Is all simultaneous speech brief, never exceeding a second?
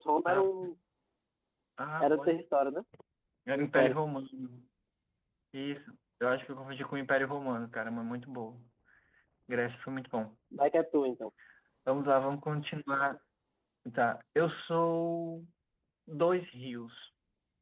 Yes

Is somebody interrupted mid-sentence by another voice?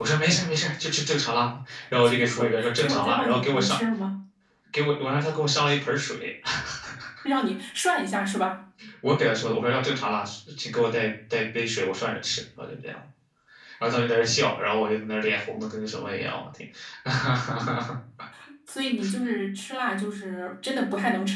Yes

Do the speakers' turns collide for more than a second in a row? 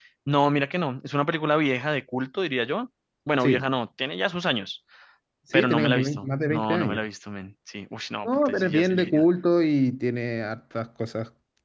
Yes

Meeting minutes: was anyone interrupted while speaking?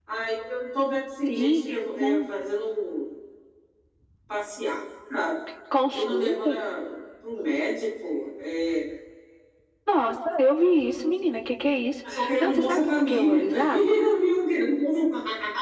Yes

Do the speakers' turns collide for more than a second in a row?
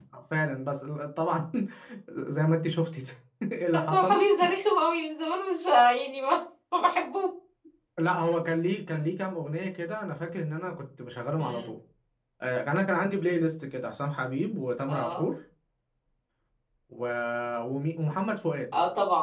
No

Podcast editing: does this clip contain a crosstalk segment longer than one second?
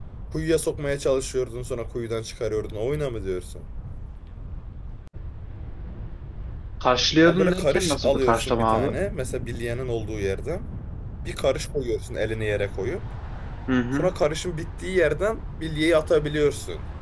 Yes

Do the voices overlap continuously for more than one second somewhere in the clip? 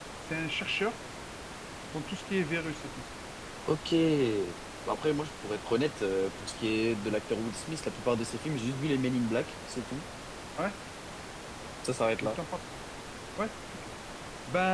No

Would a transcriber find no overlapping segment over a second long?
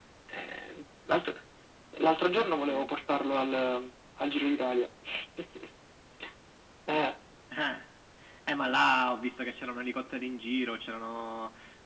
Yes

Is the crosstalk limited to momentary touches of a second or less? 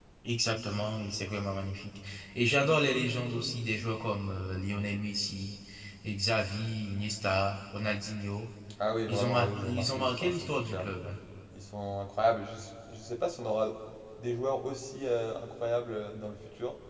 No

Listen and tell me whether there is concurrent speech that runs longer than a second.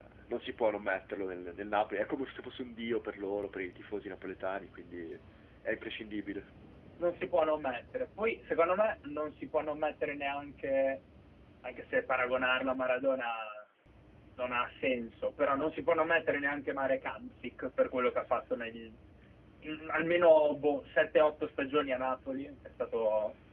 No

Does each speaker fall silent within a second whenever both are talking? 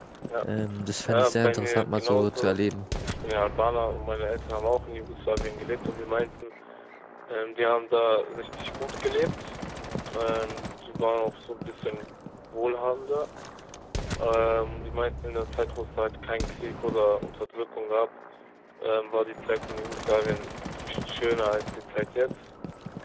No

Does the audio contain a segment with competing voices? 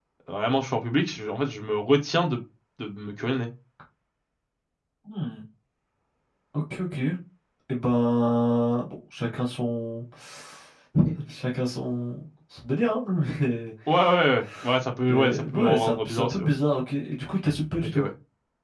Yes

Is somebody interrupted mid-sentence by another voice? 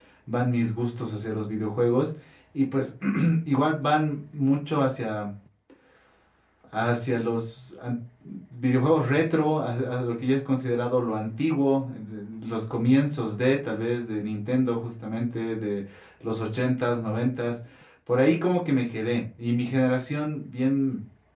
No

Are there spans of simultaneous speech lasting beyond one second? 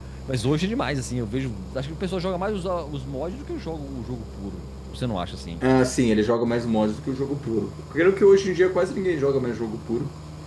No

